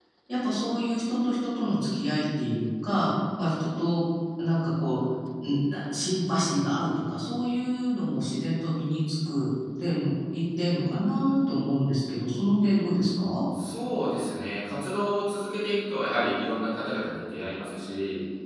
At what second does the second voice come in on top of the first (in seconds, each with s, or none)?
none